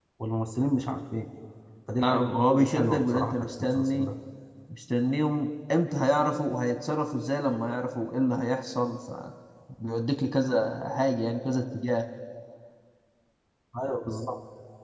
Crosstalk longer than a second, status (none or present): present